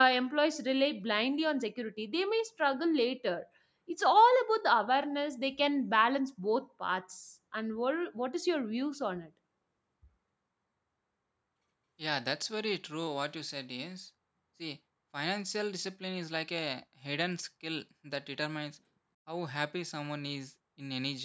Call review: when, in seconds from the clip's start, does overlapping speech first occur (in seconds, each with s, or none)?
none